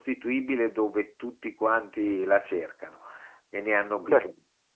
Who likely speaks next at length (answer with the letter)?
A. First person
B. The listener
A